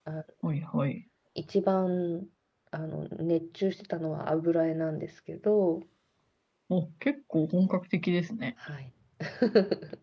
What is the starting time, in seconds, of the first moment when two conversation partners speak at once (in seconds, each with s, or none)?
none